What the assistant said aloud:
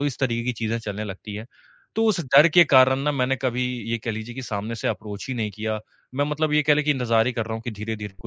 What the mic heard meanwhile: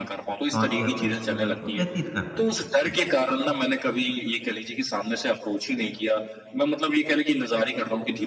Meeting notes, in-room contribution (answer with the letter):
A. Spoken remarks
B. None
A